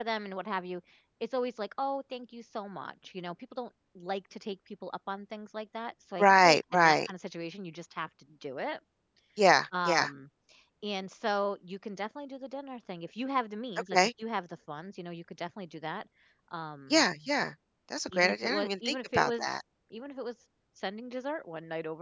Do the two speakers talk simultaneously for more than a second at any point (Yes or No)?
Yes